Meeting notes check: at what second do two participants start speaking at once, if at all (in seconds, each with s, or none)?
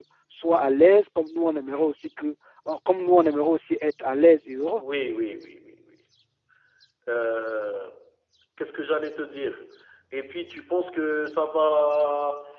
none